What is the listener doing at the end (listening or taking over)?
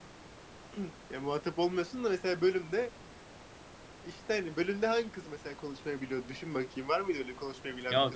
taking over